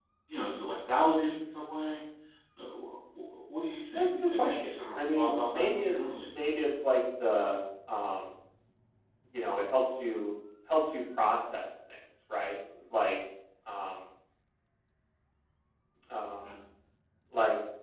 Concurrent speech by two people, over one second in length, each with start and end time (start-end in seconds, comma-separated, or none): 3.9-6.2